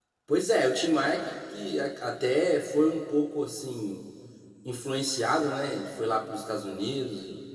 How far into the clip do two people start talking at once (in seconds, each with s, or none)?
none